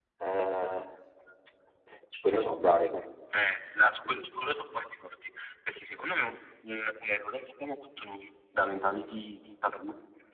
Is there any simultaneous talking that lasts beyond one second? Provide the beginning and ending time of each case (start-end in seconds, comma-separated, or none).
none